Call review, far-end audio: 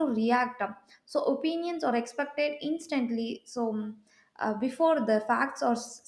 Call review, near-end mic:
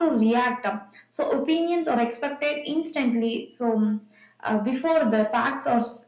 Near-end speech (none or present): none